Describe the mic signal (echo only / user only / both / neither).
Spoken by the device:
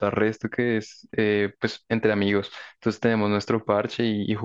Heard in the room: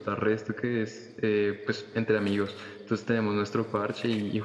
echo only